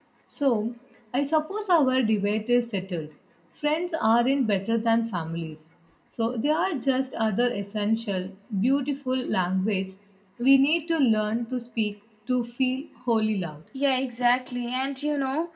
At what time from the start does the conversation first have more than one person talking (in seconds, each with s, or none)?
none